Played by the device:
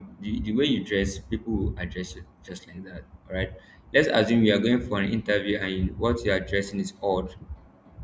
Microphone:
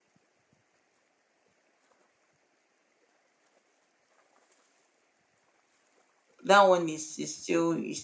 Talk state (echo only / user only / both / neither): user only